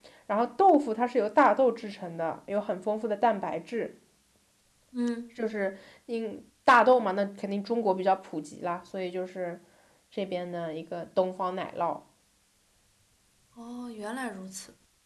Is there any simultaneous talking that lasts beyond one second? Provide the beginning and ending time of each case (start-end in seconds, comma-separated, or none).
none